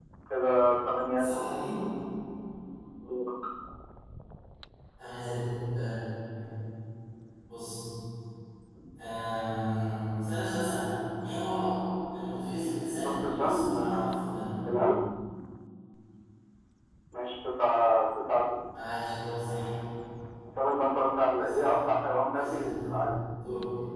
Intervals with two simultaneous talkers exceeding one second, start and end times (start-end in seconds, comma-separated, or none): 12.9-14.2